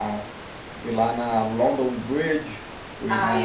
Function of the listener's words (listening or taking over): taking over